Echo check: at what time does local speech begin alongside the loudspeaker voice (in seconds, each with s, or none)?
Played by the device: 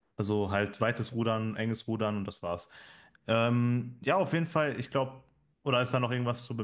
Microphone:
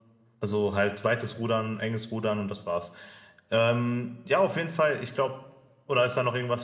none